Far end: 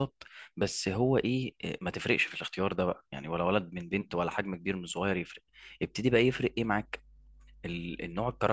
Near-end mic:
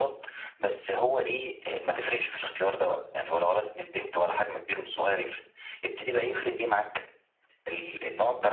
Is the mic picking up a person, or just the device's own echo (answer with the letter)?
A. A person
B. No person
A